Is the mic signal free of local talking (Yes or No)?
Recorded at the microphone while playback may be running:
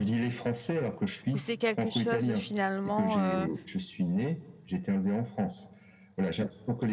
No